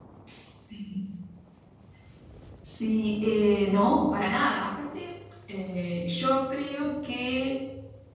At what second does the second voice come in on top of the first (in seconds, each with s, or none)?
none